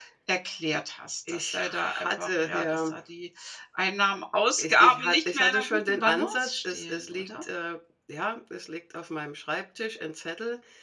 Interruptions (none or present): present